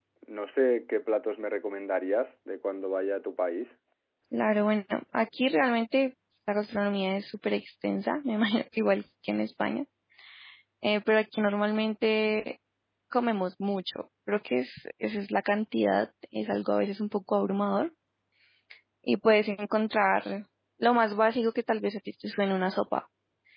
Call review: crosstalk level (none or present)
none